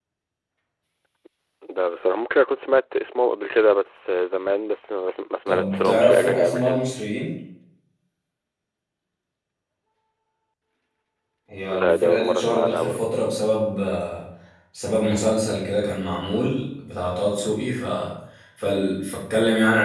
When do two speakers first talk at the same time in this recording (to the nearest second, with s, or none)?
5 s